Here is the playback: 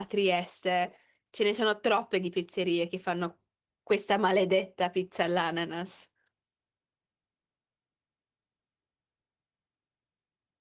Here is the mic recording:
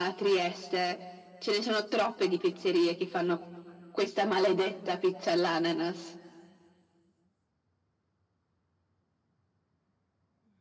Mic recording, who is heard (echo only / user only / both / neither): echo only